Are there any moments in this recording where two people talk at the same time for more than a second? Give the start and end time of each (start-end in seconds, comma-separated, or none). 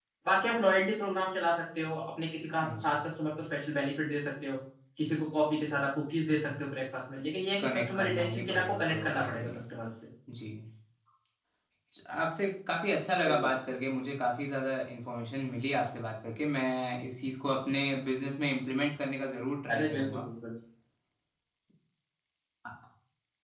7.6-9.6